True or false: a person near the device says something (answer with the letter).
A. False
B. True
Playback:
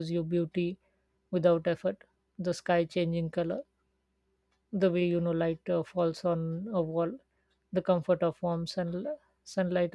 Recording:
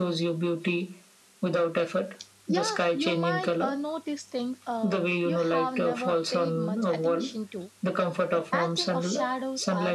B